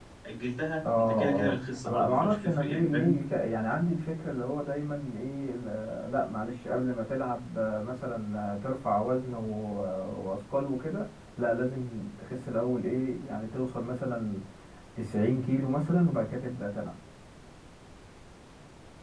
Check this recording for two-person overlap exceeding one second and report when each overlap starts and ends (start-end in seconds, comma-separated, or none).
1.0-3.2